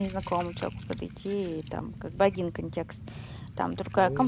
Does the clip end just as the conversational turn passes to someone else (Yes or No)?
Yes